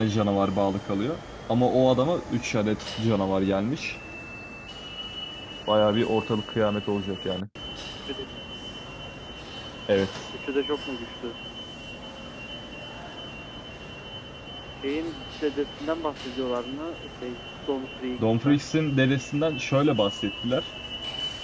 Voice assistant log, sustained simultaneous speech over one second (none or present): none